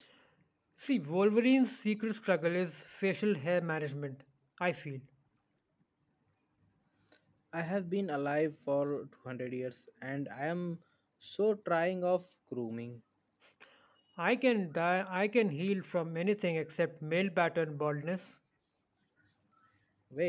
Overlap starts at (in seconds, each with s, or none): none